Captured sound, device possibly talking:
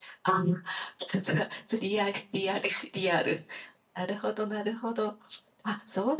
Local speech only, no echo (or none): none